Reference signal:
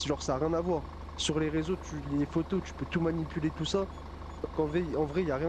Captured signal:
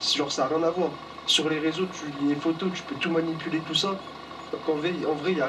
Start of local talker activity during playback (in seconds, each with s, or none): none